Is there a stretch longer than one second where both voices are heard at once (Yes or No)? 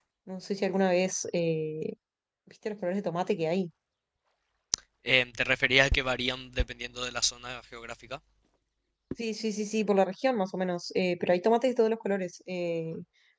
No